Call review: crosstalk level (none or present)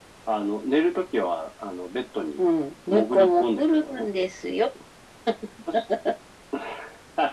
present